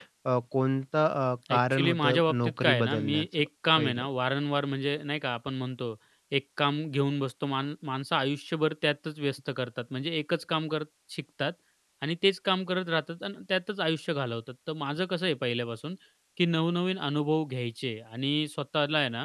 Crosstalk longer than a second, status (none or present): present